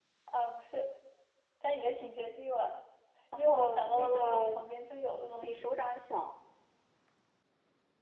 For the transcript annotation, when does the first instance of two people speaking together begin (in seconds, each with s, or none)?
3.4 s